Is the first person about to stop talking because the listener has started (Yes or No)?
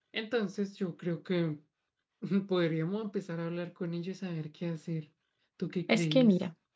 Yes